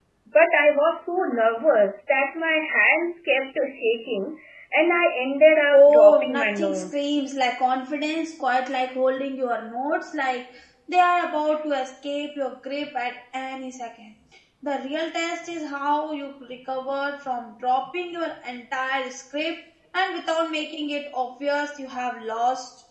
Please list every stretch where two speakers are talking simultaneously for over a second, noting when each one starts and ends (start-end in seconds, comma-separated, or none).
5.7-7.2